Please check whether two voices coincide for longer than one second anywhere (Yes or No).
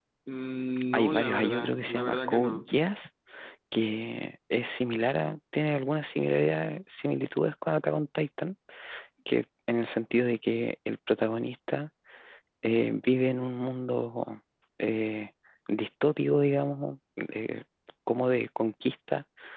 Yes